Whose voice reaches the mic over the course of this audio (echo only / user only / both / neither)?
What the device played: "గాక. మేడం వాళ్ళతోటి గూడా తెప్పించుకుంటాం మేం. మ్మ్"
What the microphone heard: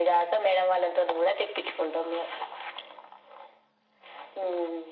echo only